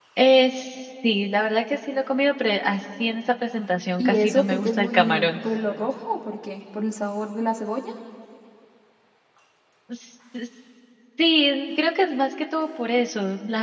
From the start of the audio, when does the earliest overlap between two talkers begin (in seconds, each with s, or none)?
4.0 s